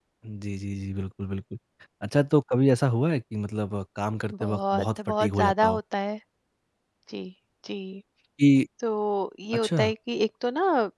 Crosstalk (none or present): present